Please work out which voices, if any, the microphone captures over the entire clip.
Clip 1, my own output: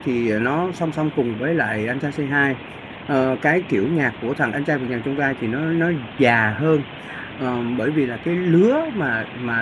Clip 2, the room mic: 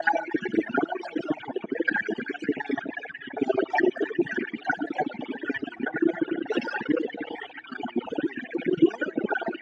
echo only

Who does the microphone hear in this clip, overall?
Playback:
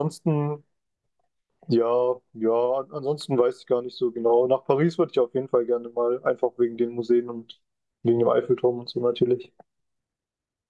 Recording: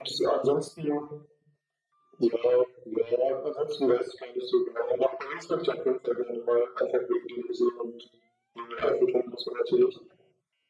echo only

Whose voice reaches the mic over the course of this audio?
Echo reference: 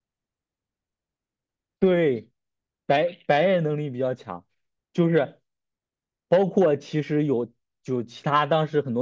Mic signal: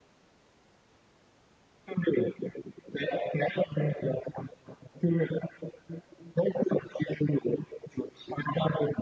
echo only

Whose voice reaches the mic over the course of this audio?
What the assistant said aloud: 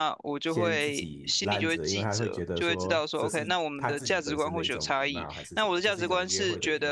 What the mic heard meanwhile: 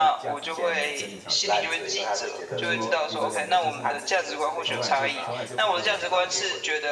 both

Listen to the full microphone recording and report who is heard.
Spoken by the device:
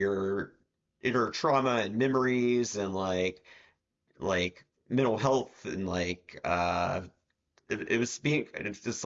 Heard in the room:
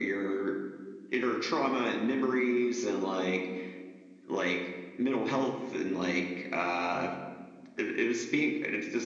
echo only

